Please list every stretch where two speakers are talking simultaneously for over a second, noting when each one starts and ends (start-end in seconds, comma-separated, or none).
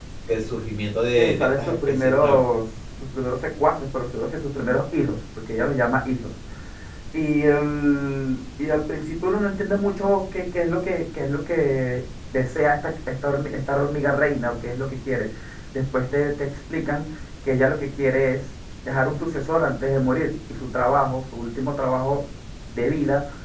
1.2-2.4